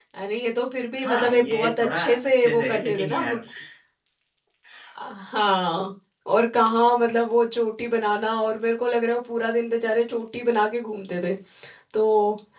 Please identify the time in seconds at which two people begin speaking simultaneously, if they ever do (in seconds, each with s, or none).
1.0 s